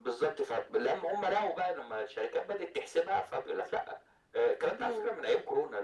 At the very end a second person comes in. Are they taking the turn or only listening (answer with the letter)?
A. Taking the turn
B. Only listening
B